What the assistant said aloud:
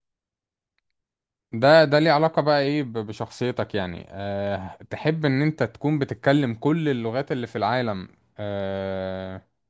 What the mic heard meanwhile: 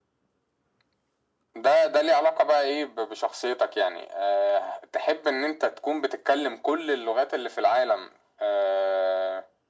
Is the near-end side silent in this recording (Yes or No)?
Yes